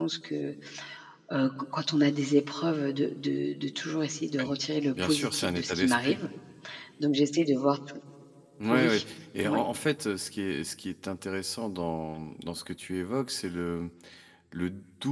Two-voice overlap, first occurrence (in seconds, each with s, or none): 4.9 s